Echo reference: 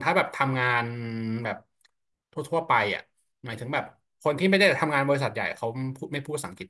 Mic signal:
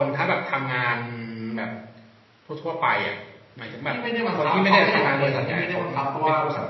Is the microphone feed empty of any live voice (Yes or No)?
No